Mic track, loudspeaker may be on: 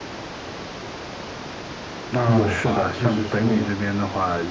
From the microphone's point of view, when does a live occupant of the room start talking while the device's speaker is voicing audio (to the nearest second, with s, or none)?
2 s